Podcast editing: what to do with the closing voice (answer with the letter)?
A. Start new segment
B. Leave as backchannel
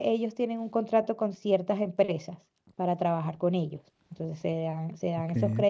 B